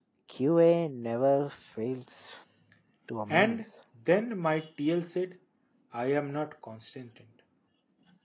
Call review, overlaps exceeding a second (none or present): none